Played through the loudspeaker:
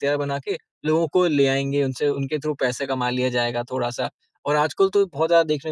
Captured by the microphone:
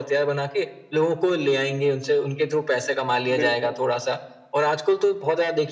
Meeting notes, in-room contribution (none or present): present